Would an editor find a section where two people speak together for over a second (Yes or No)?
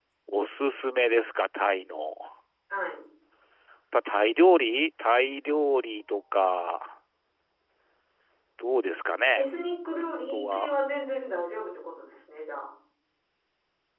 No